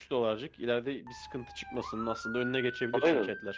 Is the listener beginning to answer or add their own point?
Yes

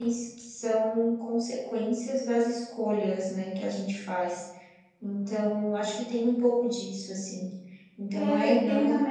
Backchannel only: No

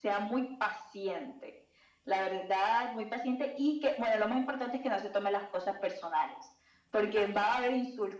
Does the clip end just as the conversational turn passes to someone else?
No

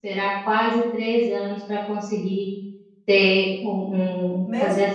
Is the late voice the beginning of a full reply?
Yes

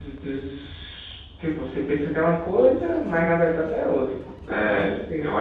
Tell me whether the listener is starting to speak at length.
Yes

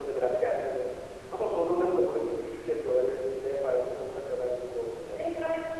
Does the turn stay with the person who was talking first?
No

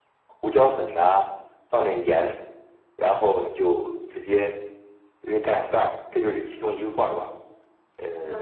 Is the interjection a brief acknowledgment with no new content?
No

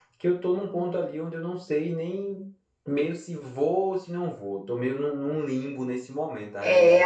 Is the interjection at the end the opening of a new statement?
Yes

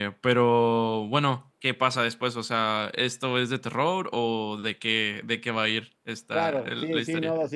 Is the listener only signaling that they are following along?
No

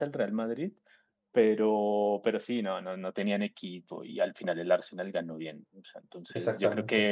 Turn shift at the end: No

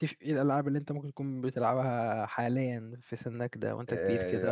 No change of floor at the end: No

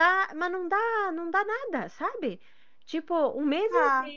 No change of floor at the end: Yes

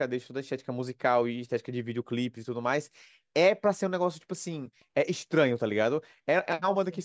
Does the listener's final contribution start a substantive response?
No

